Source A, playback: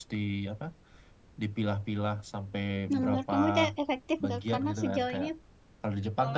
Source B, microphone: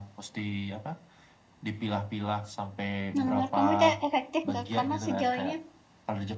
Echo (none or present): present